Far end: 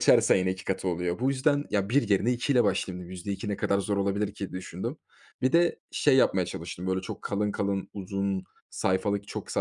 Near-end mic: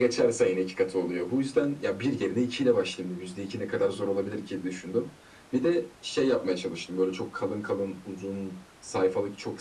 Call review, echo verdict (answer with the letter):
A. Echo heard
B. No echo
A